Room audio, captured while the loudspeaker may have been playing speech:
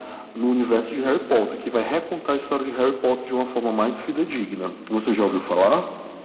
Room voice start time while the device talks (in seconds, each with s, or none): none